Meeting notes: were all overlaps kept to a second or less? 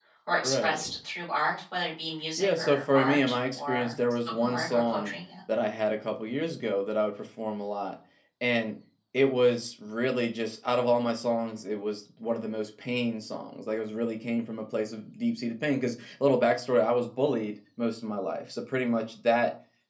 No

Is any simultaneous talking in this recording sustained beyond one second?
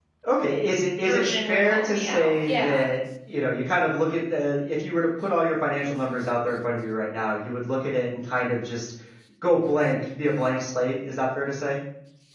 Yes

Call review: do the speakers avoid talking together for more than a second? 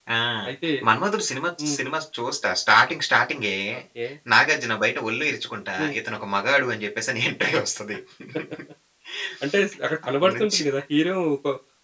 Yes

